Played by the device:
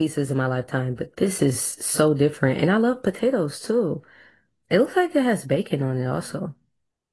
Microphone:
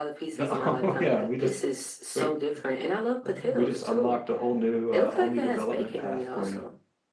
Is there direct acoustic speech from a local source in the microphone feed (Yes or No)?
Yes